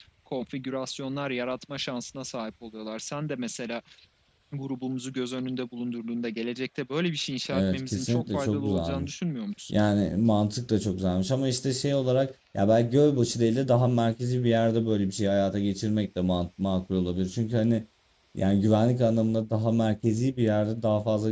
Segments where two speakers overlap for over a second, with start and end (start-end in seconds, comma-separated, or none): 7.5-9.1